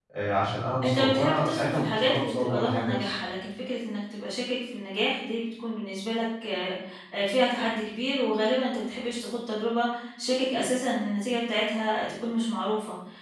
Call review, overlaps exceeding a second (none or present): present